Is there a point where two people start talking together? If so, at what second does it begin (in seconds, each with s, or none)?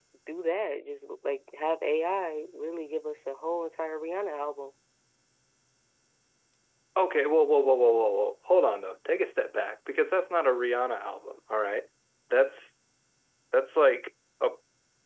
none